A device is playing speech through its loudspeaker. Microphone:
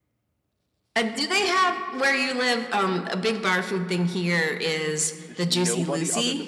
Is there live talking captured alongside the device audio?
Yes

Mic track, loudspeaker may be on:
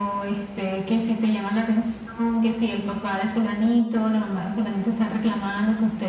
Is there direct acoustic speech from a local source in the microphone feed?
No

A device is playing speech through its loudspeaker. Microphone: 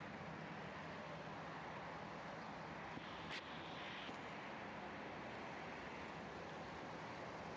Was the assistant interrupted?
No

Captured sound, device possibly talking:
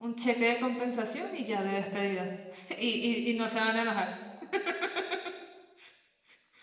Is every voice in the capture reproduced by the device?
No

